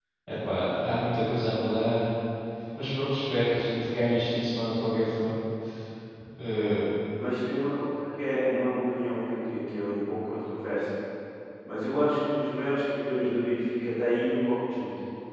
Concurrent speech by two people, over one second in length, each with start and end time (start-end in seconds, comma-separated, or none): none